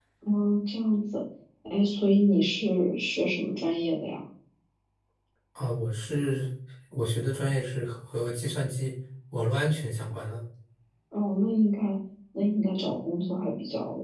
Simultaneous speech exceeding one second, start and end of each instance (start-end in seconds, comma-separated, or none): none